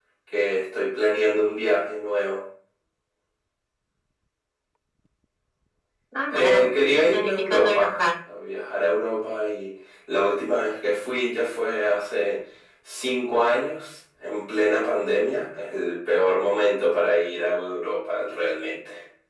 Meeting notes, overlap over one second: present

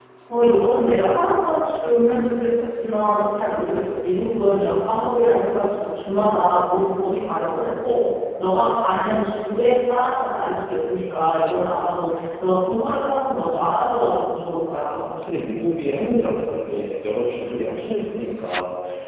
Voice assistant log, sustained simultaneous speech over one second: none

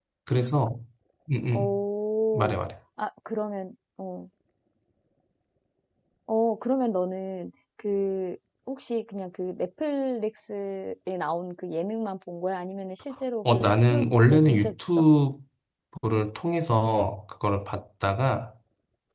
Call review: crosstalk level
present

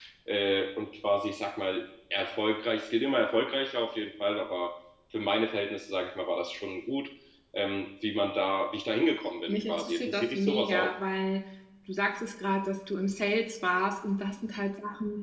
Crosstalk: present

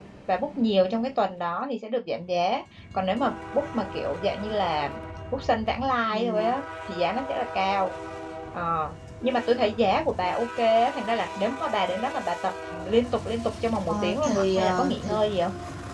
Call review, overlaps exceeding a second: present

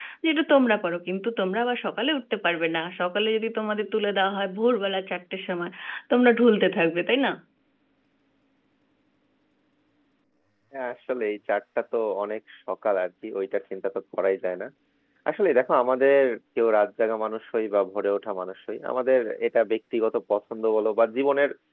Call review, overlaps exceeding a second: none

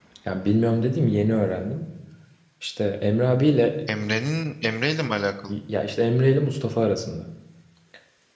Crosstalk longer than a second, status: none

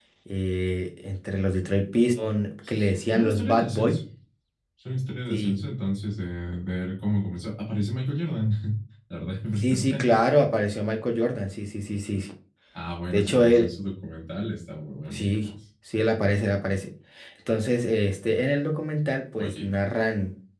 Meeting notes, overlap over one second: present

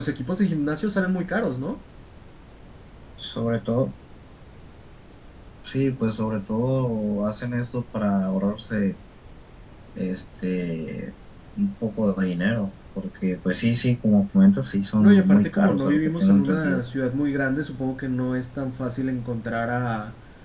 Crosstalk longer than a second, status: present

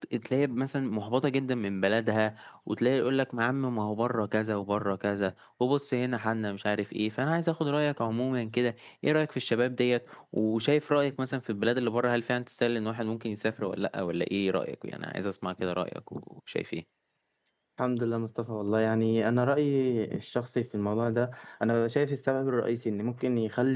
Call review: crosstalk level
none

